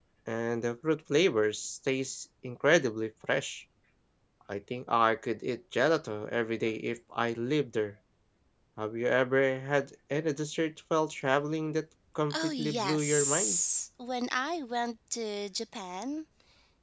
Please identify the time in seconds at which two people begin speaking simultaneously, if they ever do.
12 s

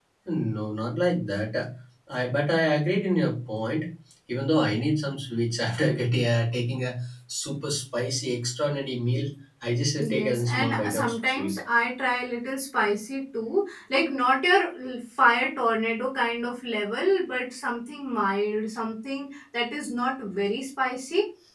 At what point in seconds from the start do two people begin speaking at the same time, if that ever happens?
10 s

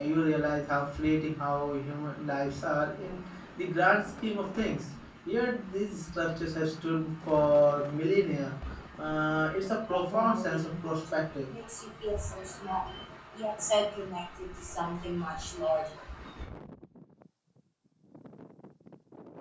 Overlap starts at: 10 s

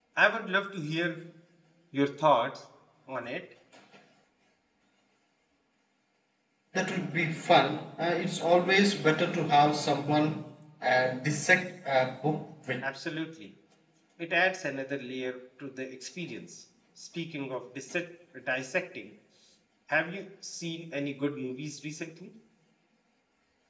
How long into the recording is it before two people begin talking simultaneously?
none

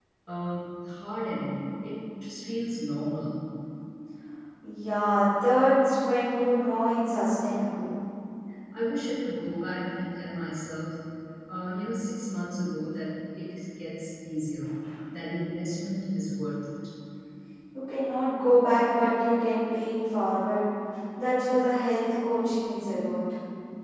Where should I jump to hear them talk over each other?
none

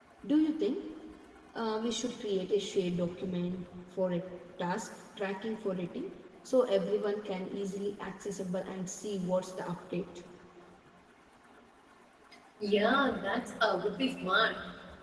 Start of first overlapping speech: none

